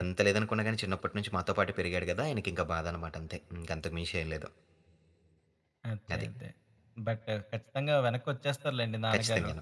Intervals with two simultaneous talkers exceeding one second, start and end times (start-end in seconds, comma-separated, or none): none